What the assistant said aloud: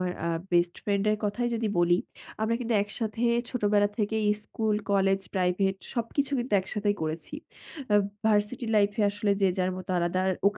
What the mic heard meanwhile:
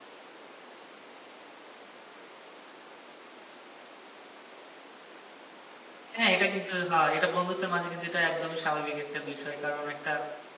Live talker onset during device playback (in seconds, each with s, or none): 6.2 s